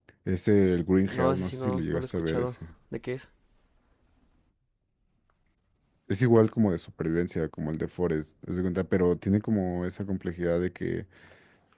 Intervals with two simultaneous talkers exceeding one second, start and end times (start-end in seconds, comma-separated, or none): 1.1-2.5